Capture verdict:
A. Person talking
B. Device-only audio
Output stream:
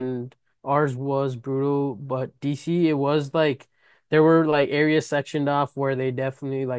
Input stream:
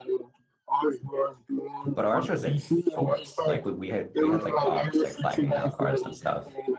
A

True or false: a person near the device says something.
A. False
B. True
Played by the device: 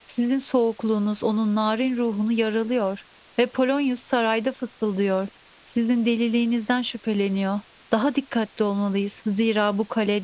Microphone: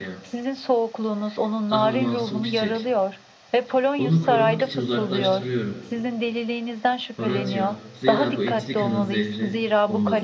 B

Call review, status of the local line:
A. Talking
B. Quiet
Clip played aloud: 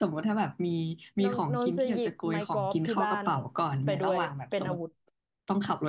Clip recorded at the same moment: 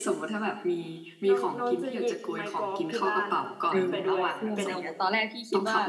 A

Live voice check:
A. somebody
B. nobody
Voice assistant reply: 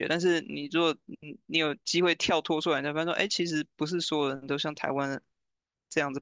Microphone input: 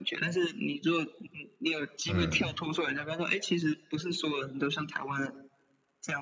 A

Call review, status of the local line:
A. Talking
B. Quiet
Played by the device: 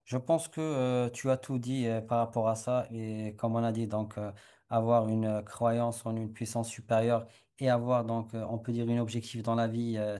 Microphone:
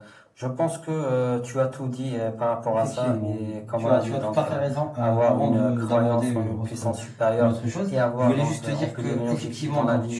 A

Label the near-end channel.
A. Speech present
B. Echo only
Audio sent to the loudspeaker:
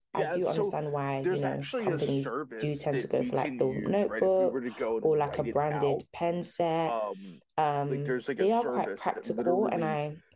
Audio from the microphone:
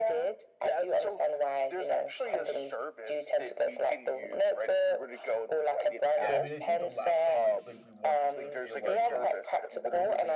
A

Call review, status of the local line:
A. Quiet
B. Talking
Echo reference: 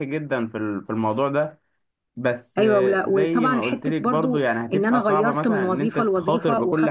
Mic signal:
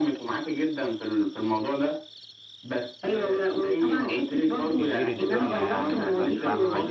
B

